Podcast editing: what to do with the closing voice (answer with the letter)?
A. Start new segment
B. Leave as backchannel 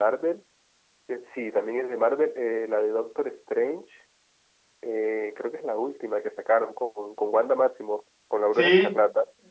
A